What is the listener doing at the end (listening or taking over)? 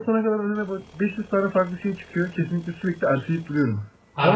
listening